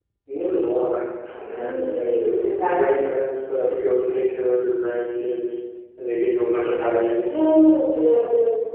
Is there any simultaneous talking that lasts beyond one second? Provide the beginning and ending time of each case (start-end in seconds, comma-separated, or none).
1.4-2.8